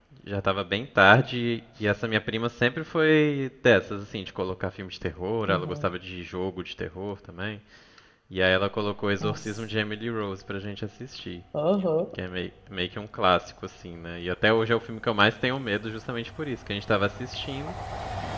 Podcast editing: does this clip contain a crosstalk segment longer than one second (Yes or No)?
No